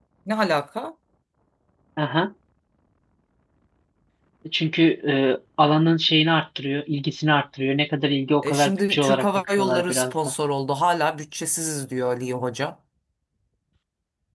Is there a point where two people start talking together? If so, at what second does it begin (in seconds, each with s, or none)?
8.4 s